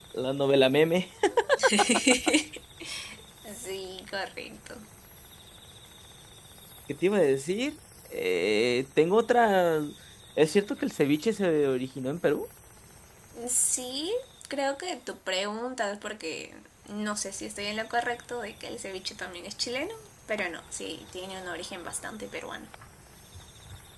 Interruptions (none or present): none